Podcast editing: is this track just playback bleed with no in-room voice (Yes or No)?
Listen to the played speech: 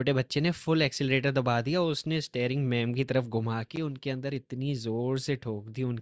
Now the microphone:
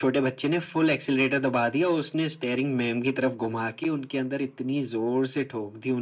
Yes